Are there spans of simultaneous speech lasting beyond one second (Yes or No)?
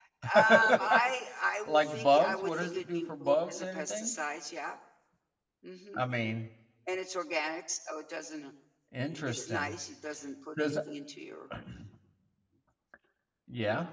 Yes